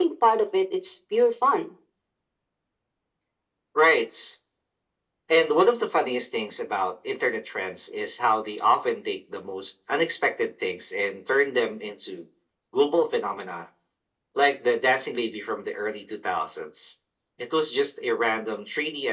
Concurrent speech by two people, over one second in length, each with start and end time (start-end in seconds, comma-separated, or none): none